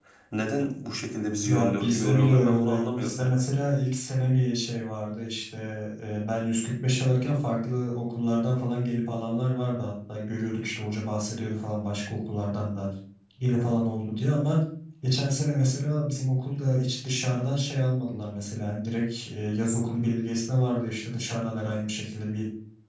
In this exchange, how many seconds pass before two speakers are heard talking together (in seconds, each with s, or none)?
1.4 s